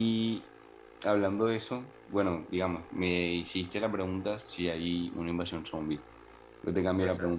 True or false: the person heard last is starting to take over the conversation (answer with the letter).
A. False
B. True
A